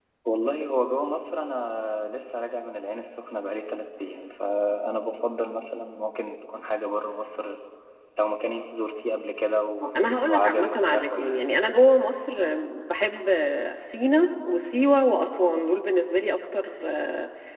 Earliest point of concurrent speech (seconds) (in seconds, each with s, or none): 9.8 s